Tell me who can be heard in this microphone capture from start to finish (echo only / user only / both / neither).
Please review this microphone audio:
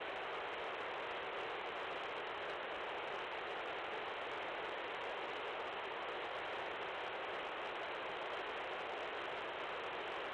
neither